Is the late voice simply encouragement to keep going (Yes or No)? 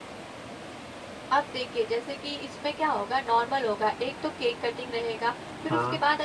Yes